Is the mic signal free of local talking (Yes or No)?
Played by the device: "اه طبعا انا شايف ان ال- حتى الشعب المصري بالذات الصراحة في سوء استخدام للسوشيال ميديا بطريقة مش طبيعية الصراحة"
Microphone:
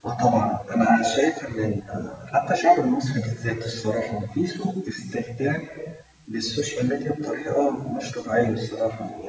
Yes